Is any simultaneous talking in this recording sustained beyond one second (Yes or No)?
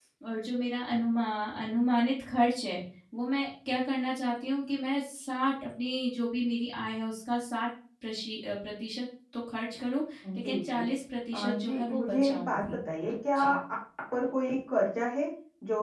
Yes